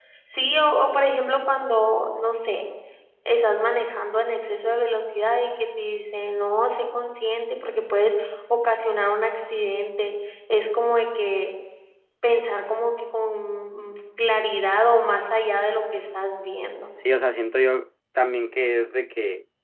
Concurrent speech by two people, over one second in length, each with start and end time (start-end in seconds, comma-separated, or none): none